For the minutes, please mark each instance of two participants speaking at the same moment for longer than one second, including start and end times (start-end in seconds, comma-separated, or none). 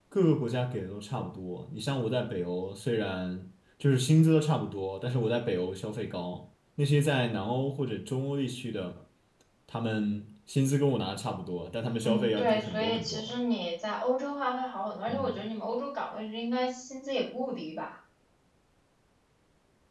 12.0-13.4